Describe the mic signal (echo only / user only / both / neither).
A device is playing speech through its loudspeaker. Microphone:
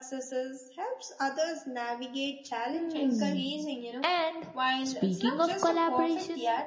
both